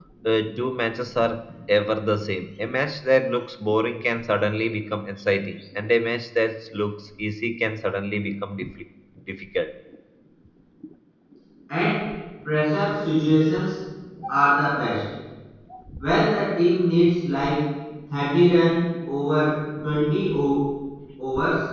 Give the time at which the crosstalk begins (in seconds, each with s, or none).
none